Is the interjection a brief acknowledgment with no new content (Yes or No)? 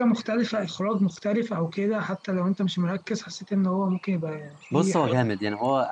No